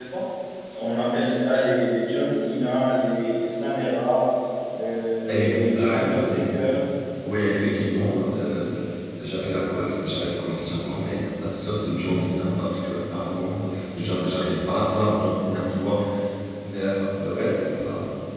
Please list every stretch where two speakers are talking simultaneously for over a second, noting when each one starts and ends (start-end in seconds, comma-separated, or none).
5.3-6.6